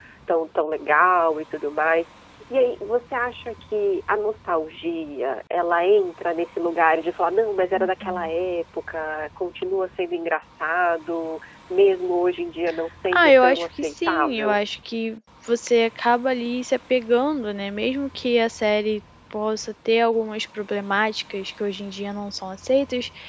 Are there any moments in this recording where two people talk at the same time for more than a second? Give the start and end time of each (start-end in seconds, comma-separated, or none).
13.1-14.6